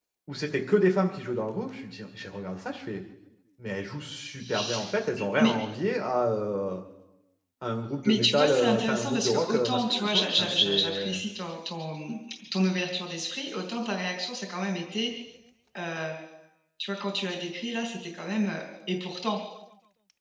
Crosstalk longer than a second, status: present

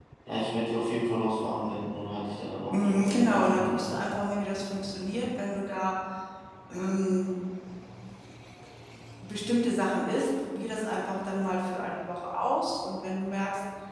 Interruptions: present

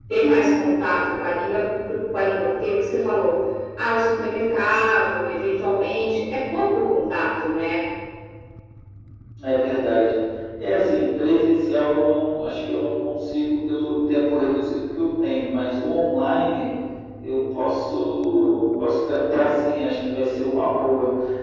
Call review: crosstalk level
none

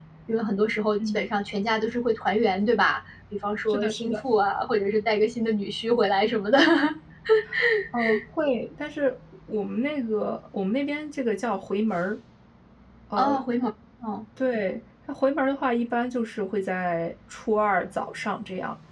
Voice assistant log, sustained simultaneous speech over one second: none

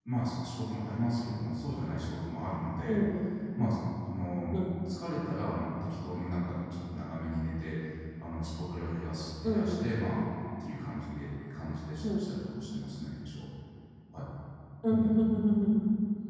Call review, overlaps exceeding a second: none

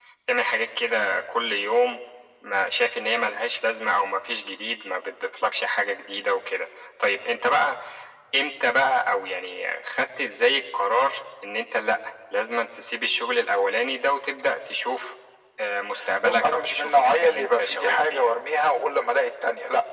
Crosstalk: present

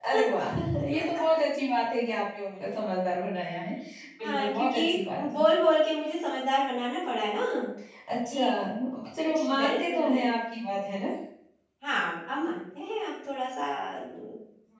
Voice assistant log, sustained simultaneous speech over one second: present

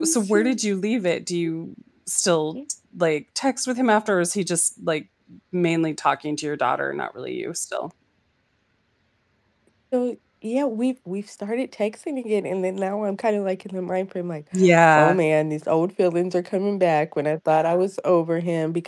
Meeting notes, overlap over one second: none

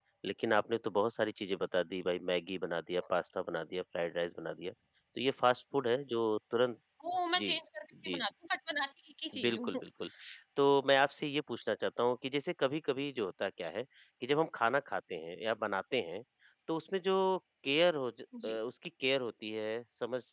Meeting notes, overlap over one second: none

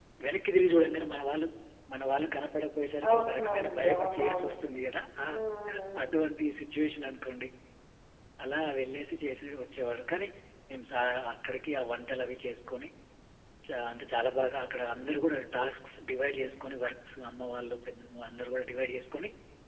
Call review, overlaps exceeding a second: present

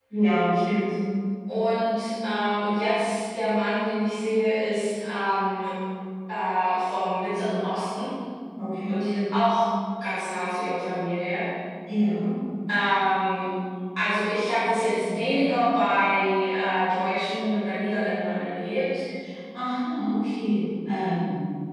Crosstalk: none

